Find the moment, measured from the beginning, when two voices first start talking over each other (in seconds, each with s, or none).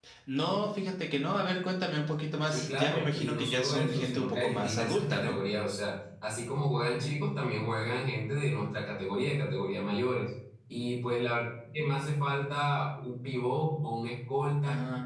2.5 s